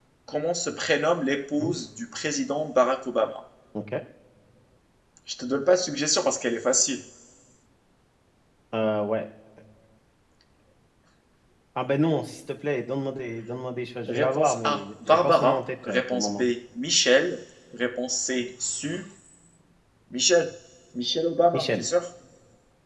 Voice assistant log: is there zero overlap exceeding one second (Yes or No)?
No